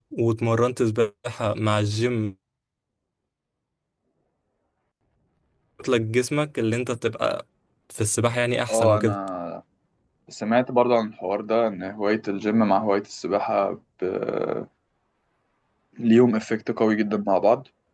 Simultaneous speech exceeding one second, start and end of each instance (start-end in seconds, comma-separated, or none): none